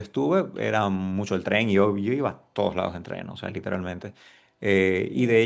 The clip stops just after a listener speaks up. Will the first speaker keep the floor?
Yes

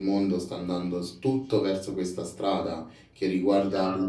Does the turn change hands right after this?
No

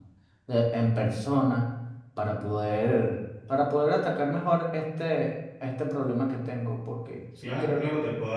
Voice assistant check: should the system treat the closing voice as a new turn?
Yes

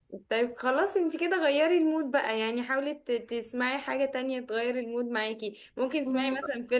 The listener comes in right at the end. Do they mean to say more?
No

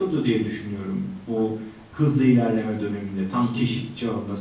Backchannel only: Yes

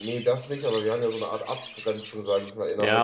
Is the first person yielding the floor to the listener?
Yes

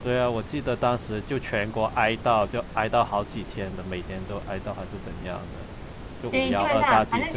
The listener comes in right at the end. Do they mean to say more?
Yes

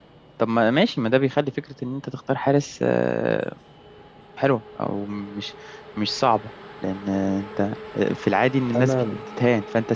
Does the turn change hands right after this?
No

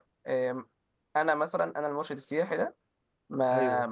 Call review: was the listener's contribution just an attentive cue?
Yes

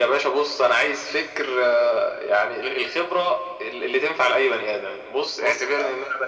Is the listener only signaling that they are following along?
Yes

